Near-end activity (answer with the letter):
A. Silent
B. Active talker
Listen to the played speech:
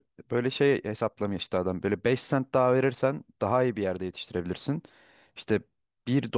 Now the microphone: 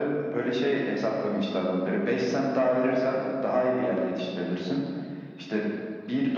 A